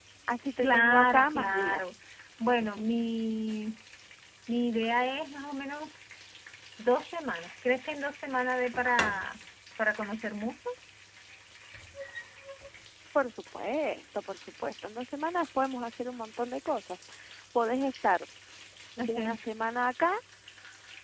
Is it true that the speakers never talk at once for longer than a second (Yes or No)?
No